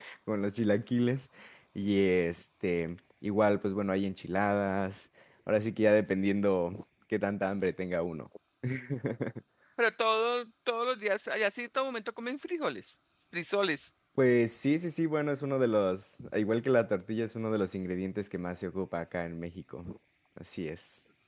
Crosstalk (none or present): none